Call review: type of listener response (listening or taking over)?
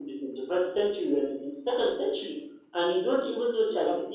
listening